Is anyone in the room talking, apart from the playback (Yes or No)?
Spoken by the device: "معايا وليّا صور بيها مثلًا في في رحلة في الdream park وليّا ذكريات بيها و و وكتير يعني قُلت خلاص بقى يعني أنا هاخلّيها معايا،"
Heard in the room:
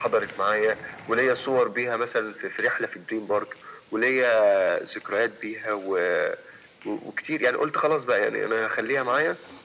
No